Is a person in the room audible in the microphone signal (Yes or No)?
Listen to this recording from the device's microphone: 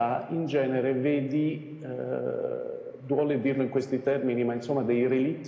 No